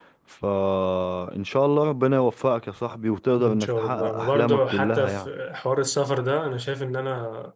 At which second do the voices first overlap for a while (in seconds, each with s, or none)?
3.4 s